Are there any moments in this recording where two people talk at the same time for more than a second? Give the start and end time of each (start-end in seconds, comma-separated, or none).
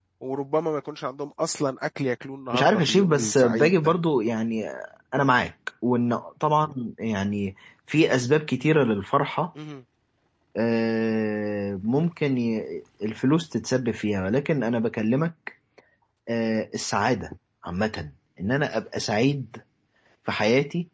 2.5-3.9